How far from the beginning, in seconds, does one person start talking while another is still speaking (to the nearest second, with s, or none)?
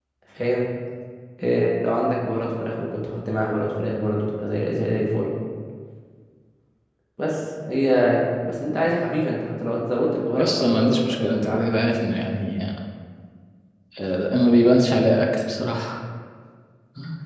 10 s